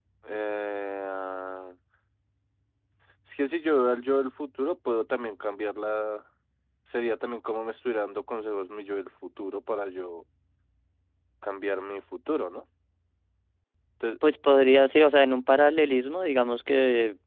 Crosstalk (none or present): none